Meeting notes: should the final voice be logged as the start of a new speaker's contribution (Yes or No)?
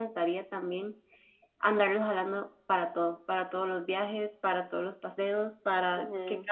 No